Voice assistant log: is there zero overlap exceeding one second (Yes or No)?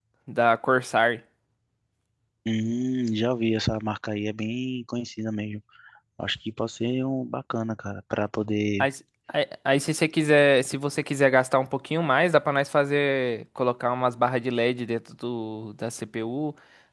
Yes